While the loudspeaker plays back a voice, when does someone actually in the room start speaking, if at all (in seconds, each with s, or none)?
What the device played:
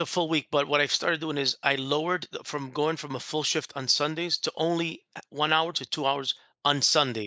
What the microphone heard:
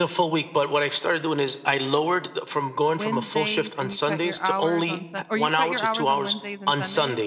2.9 s